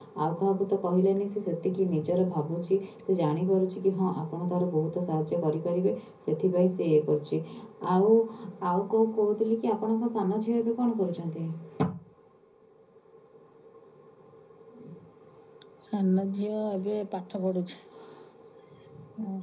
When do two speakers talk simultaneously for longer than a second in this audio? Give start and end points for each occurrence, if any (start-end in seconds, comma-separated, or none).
none